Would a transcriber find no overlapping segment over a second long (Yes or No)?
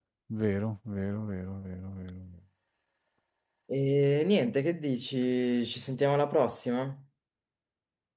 Yes